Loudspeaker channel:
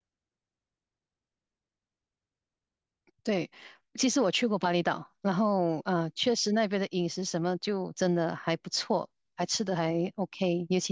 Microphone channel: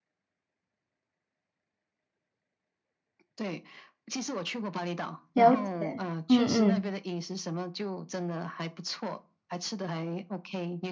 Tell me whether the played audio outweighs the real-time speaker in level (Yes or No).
No